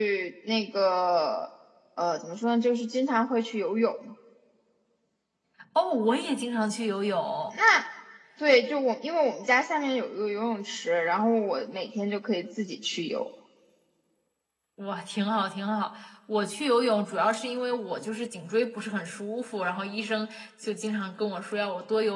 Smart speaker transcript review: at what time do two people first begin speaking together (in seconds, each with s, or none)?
none